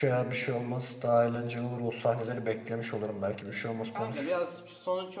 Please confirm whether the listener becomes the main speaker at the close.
Yes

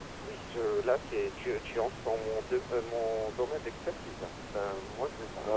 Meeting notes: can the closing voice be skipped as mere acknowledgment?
Yes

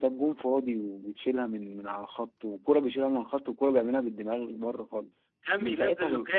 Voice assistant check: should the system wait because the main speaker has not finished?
No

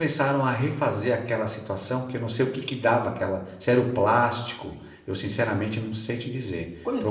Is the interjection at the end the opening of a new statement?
Yes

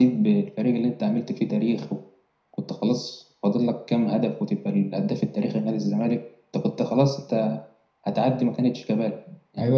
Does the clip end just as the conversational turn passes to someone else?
Yes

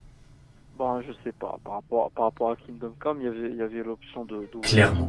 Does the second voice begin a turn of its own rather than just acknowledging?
Yes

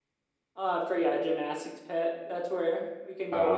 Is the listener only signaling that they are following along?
Yes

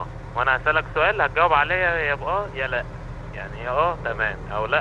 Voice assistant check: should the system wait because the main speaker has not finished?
Yes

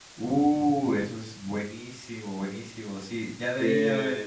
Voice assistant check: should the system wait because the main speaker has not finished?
Yes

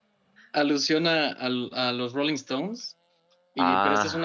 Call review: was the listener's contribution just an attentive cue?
Yes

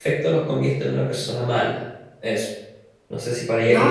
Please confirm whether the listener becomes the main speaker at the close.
Yes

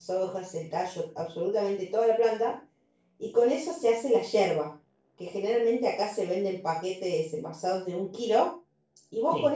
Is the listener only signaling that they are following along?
Yes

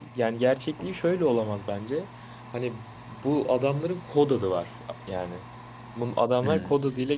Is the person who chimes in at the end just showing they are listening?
Yes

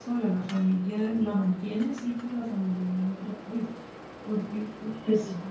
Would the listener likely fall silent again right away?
Yes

